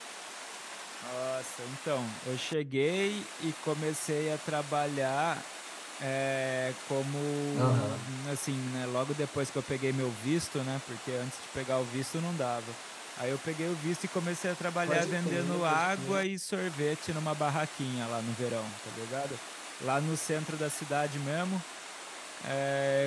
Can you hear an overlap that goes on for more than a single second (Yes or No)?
Yes